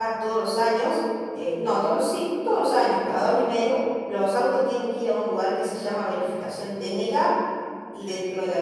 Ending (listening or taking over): listening